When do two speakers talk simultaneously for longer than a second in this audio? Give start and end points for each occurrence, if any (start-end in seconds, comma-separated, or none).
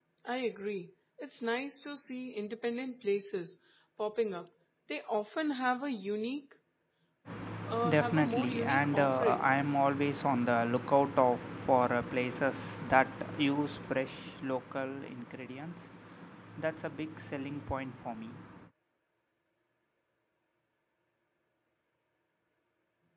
7.9-9.5